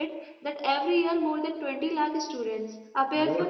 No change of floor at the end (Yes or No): No